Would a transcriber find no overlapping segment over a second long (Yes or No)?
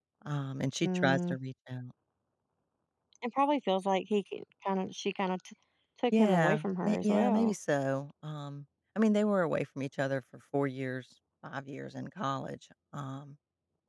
No